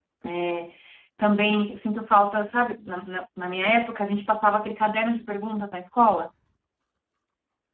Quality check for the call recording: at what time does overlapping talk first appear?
none

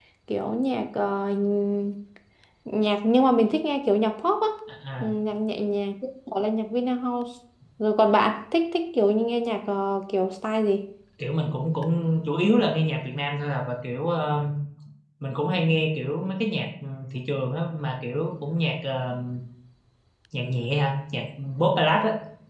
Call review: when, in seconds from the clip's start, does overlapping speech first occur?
none

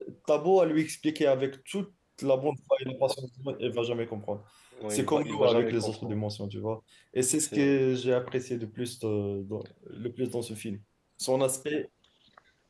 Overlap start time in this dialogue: 4.9 s

